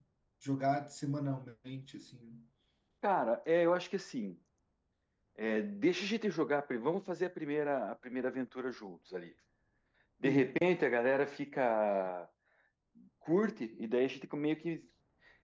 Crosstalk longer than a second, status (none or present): none